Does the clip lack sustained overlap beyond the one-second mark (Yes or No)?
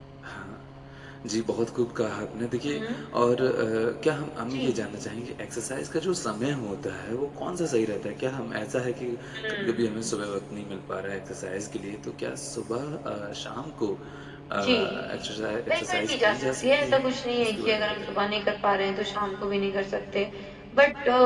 No